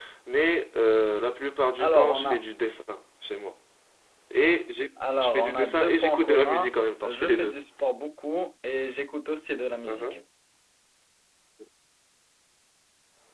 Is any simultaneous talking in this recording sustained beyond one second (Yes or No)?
Yes